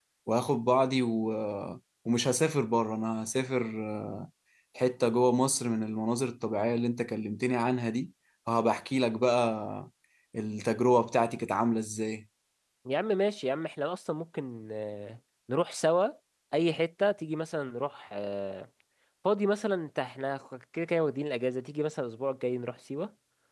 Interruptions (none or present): none